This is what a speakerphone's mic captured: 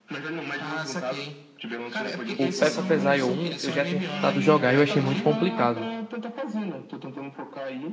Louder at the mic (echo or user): user